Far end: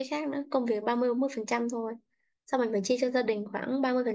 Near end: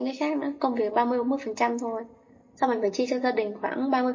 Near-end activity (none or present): none